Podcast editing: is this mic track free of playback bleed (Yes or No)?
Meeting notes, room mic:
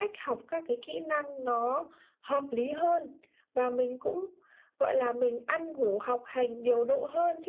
No